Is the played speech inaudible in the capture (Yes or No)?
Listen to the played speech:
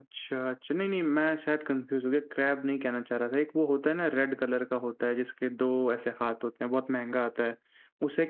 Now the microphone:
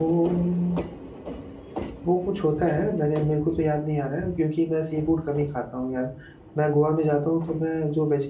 Yes